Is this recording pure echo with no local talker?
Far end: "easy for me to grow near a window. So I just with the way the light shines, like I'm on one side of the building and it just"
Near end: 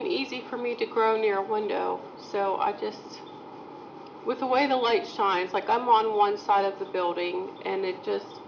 Yes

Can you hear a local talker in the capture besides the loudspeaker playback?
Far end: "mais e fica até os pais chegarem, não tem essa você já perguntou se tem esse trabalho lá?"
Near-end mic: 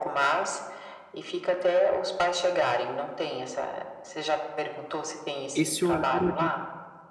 Yes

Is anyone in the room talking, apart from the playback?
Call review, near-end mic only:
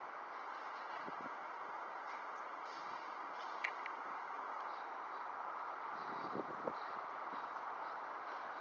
No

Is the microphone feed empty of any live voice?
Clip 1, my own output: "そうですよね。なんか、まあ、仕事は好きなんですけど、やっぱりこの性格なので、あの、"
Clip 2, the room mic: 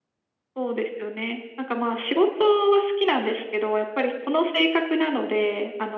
Yes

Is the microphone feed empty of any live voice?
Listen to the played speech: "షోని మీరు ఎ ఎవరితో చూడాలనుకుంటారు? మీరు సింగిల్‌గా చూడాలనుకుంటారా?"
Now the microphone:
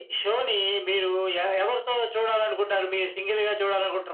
Yes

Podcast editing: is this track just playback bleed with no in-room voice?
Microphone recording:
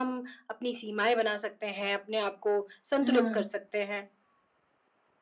No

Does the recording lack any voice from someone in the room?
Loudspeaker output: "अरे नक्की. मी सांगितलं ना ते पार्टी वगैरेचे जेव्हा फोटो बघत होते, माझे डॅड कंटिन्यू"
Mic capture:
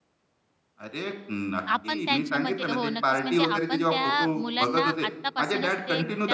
No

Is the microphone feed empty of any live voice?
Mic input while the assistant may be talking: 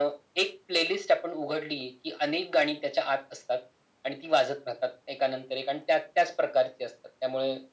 Yes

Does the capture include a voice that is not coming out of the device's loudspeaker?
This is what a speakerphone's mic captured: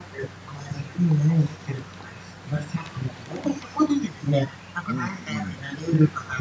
Yes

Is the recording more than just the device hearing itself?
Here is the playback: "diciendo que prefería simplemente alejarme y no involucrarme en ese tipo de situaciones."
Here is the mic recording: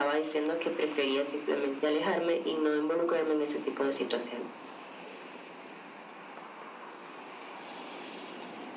No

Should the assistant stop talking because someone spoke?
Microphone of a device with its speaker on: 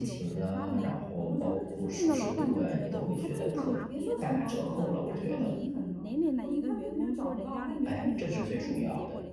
Yes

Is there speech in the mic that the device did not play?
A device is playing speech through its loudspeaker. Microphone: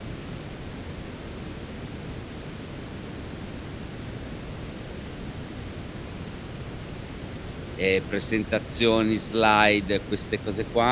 Yes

